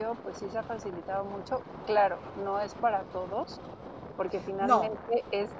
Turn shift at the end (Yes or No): No